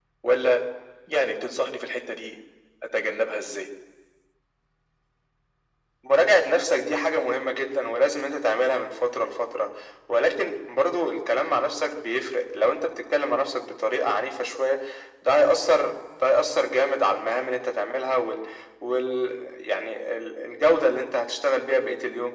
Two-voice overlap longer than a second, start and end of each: none

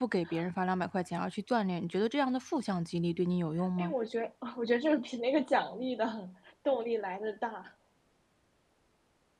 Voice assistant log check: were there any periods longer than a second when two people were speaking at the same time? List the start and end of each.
none

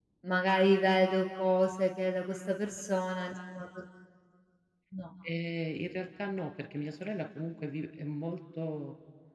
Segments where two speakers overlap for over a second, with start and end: none

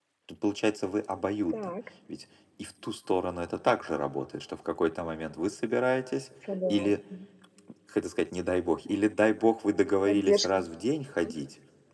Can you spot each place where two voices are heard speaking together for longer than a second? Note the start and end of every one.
none

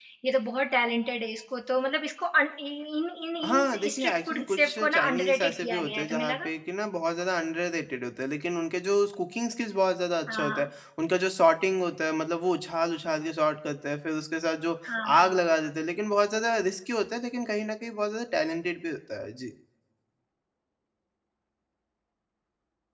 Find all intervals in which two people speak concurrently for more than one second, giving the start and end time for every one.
3.4-6.5

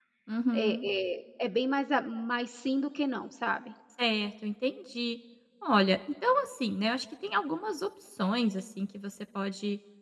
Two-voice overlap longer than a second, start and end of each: none

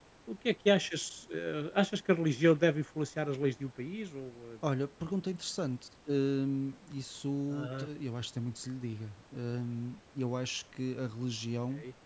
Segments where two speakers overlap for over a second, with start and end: none

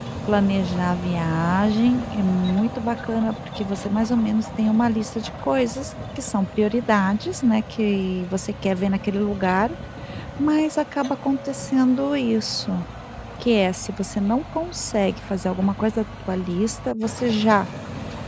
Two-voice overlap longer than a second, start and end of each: none

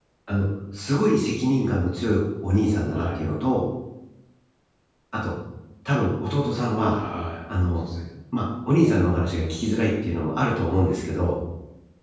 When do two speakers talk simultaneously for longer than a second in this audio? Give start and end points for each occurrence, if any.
none

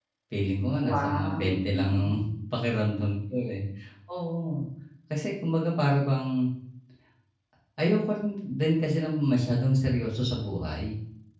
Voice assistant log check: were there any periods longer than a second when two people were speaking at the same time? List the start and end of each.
0.8-2.1

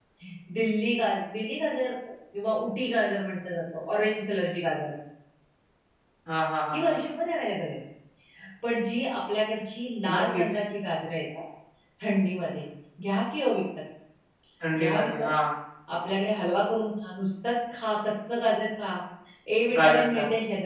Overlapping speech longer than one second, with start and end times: none

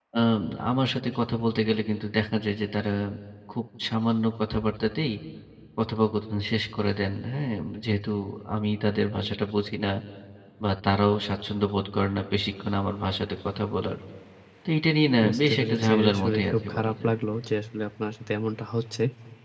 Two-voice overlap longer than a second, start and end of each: 15.2-17.1

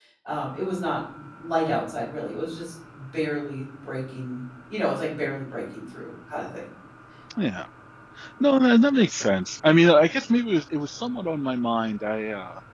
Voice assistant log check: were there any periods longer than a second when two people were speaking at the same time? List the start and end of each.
none

